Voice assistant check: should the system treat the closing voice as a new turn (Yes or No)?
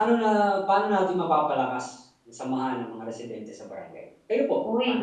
Yes